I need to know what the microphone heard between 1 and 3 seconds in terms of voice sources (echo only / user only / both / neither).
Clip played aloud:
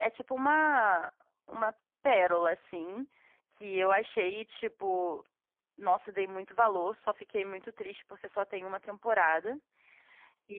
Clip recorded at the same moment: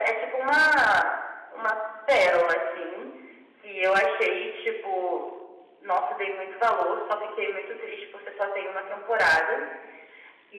echo only